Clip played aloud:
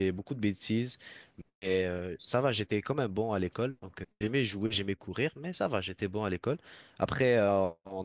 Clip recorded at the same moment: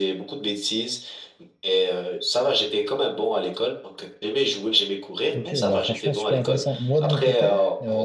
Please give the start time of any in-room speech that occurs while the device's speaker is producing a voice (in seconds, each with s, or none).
5.3 s